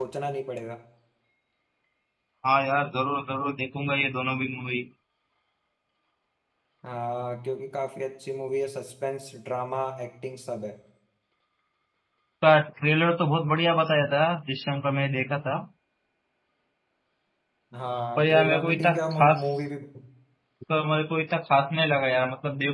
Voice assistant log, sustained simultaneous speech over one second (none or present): present